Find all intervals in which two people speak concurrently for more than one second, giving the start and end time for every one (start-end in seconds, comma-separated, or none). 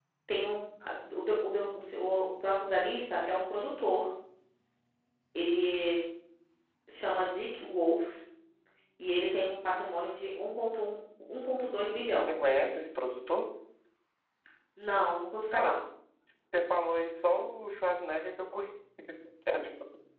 none